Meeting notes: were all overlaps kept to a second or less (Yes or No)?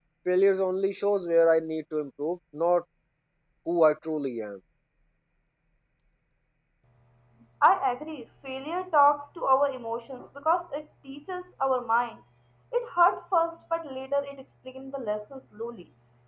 Yes